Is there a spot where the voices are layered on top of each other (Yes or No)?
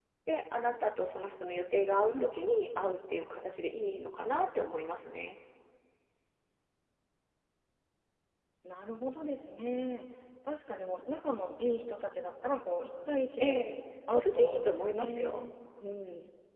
Yes